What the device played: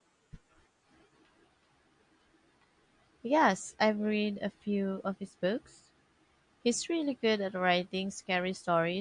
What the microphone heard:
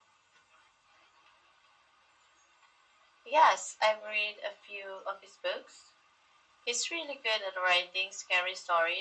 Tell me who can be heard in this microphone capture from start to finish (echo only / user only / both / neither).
echo only